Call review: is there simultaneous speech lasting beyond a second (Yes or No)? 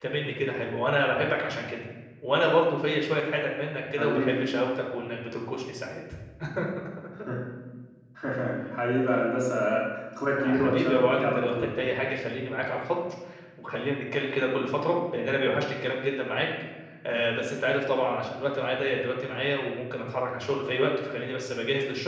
Yes